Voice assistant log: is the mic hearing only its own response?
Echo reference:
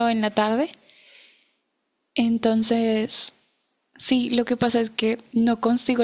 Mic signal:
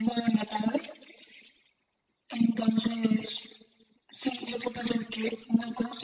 Yes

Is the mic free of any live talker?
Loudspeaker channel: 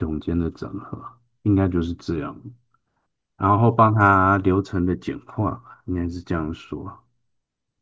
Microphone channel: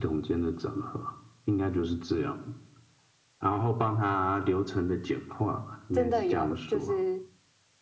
No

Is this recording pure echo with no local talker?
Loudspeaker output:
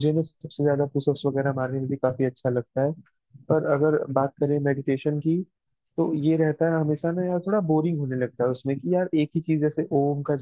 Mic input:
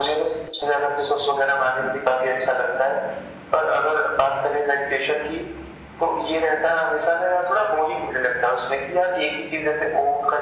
Yes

